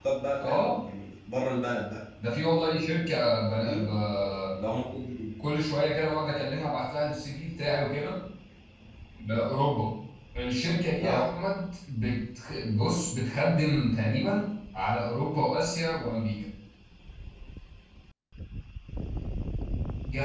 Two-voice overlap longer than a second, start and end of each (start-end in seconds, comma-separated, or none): none